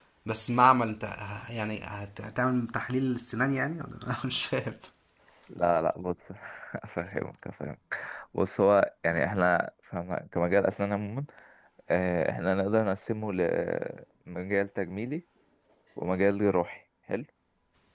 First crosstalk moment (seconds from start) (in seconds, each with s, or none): none